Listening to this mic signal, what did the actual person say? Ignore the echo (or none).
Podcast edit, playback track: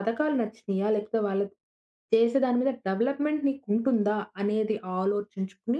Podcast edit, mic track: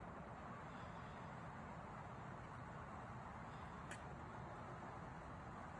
none